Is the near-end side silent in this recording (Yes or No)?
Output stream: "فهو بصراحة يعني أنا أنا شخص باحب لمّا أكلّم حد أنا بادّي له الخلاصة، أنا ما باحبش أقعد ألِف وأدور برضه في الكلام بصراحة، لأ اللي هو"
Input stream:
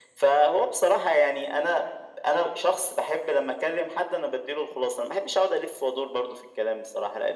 Yes